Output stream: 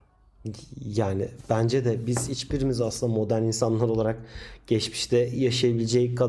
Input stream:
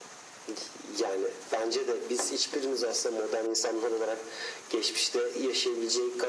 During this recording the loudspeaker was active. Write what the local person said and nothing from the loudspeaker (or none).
none